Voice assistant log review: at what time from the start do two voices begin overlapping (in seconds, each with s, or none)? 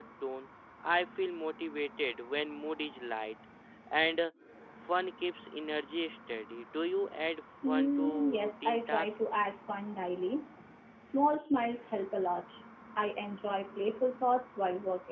7.6 s